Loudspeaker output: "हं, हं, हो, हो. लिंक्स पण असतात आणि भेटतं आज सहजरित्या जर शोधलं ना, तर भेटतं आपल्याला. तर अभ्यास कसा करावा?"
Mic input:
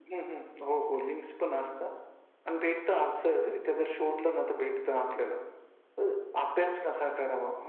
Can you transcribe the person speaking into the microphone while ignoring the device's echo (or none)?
none